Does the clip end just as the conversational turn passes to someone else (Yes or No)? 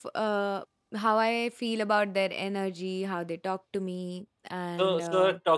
Yes